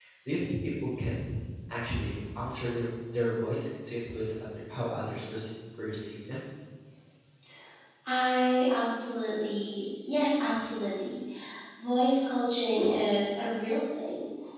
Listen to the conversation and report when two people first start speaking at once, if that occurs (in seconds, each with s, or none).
none